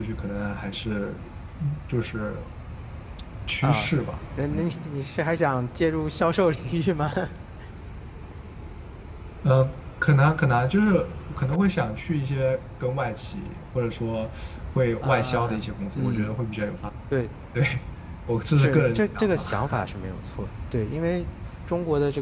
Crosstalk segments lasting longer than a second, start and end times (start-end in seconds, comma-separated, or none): 15.0-16.4, 18.6-19.8